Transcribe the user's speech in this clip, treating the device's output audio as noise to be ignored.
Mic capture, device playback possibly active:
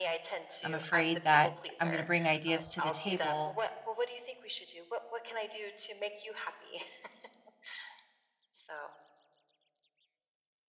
I'm afraid that I'm going to bring ideas to the table

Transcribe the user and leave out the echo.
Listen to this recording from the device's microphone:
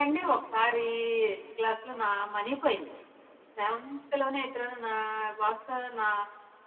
none

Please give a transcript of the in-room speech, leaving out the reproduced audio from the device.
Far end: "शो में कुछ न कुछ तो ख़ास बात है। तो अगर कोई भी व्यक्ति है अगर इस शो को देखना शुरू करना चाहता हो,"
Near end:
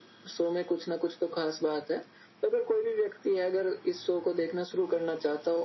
none

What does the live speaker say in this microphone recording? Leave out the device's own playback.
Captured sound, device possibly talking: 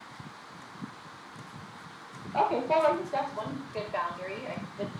none

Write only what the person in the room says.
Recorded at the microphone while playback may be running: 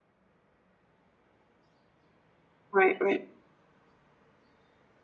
right, right,

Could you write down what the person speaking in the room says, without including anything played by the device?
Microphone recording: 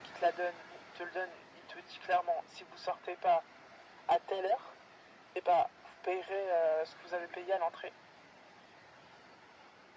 none

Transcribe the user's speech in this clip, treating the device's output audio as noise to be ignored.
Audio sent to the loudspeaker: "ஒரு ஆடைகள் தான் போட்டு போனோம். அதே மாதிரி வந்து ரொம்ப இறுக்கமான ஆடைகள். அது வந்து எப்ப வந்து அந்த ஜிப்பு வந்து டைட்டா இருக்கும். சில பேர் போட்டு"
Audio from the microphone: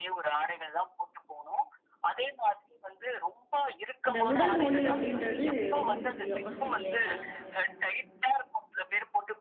அந்த உடல் மொழி அப்டின்றது ரொம்ப முக்கியம் இல்லையா?

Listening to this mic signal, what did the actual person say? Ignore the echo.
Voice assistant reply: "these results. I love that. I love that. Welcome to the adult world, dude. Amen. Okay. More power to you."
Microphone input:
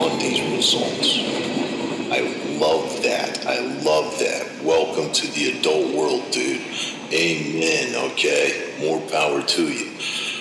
none

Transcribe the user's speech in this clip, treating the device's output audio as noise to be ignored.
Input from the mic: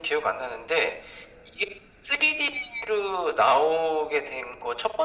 none

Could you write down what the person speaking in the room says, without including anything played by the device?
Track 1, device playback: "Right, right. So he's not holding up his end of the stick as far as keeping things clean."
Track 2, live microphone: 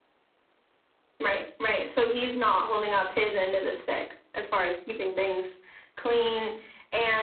none

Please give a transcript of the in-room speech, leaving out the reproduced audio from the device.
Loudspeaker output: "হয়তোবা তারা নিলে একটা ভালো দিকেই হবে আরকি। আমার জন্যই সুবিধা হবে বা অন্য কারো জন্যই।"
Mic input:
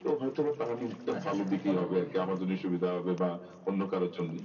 আচ্ছা, আচ্ছা, তো বলেন তো একটু।

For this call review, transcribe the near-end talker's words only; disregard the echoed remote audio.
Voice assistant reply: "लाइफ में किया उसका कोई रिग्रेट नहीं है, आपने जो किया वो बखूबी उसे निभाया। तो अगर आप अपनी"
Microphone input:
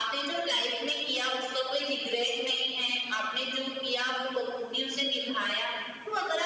none

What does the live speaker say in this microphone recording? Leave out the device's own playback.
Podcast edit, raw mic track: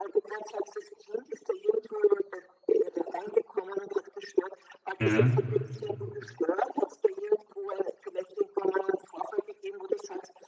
Mhm.

